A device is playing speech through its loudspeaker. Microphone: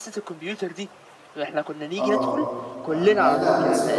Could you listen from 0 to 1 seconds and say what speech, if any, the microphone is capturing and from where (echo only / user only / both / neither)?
echo only